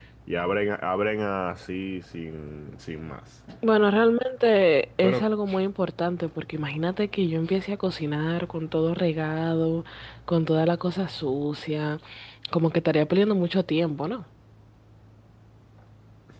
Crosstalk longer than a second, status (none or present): none